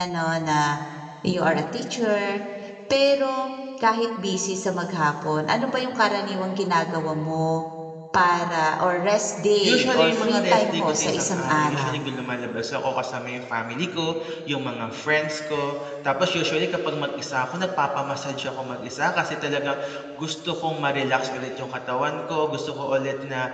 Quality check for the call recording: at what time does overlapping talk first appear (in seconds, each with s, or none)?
9.6 s